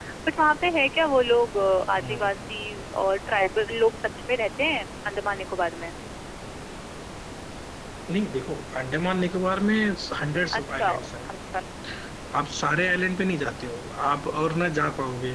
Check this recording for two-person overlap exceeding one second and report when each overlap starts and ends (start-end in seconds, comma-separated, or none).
none